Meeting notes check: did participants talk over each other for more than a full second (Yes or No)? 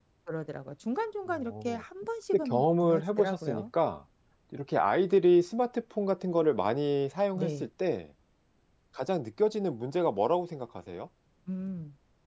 Yes